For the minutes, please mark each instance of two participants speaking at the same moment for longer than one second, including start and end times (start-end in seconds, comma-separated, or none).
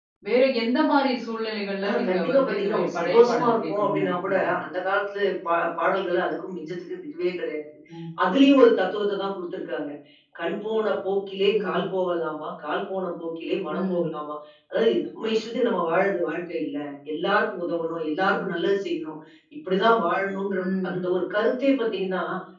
1.8-4.5